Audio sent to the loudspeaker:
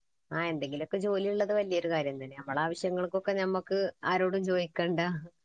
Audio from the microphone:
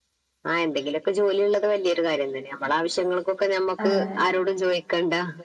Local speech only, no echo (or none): അങ്ങനെ